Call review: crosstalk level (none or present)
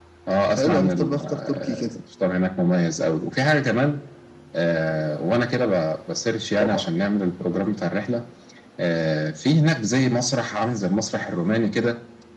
present